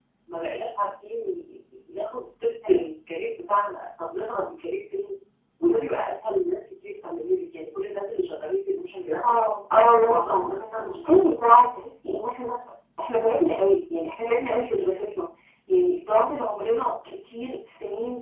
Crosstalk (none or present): present